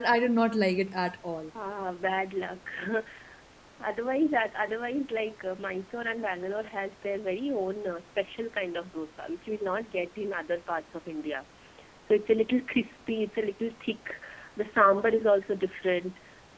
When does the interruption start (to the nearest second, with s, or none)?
none